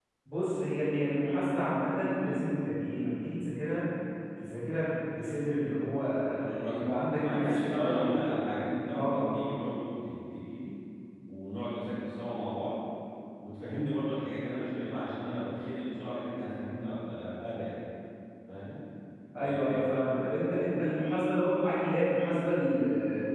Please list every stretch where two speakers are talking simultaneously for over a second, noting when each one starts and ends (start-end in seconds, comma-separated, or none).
6.6-8.1